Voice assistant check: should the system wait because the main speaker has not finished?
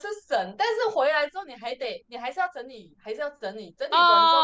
No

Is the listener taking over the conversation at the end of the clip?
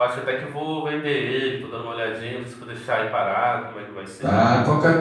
Yes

